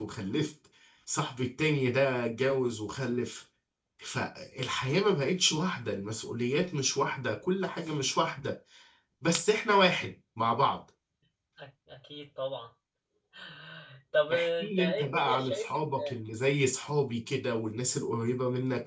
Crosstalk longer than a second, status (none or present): present